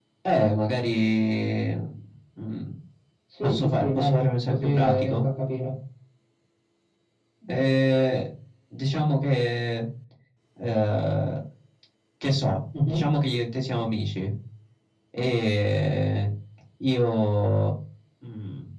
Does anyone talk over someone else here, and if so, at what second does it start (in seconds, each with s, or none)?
3.4 s